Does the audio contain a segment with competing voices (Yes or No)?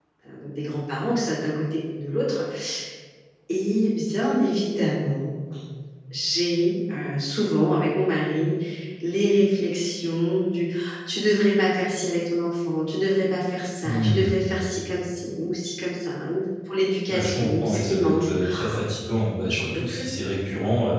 Yes